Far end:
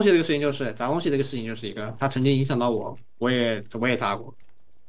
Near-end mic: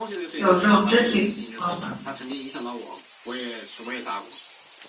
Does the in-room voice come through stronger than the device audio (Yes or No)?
Yes